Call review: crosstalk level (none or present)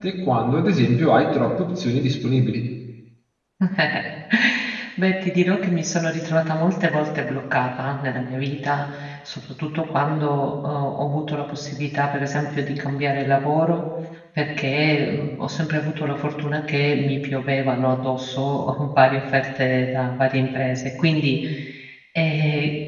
none